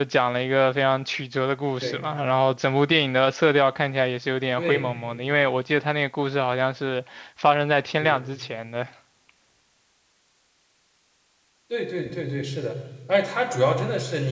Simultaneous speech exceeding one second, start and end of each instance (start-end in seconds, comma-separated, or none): none